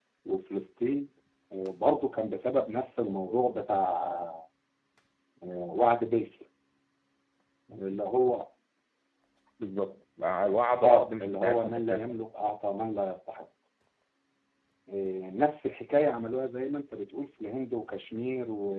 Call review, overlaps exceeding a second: present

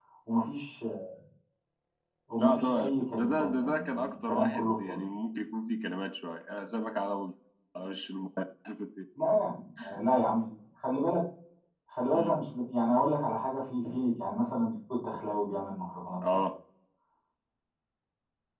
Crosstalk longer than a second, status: present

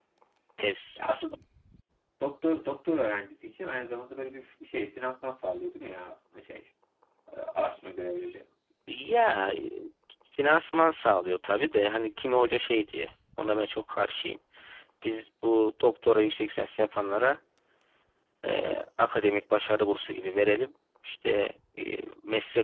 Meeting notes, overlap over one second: none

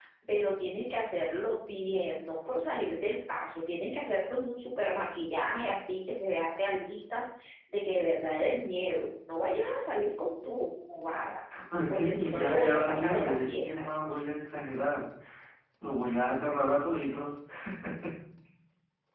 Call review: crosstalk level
present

